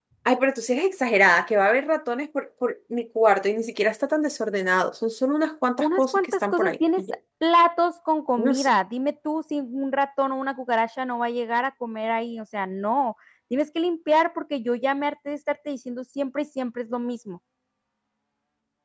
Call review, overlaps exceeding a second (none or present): present